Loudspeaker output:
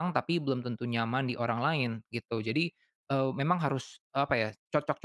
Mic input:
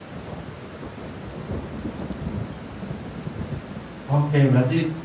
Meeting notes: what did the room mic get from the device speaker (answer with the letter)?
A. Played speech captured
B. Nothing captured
B